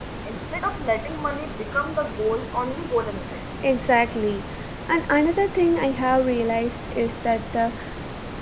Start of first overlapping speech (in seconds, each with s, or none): none